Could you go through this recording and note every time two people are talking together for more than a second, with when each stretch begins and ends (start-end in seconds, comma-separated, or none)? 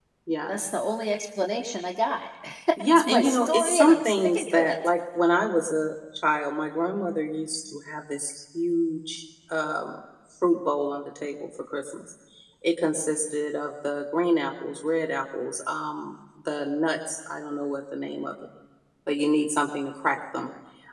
2.9-4.8